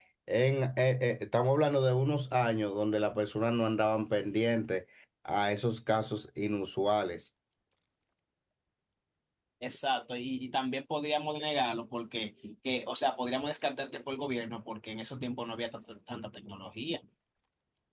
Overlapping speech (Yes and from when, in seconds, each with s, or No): No